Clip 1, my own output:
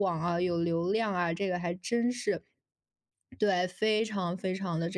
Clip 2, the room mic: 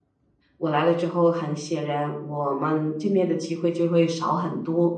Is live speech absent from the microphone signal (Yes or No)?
No